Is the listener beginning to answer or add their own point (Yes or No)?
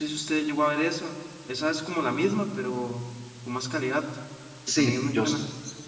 Yes